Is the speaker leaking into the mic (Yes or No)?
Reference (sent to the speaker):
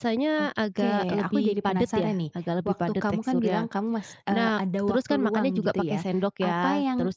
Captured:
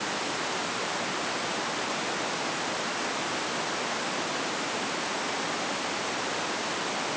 No